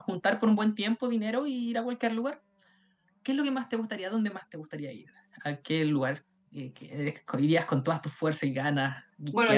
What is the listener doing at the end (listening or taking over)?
taking over